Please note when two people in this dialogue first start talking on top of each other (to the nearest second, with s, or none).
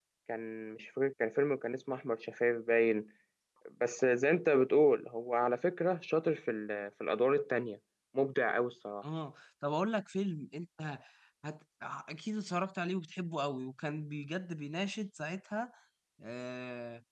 none